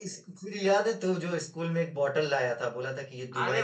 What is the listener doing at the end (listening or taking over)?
taking over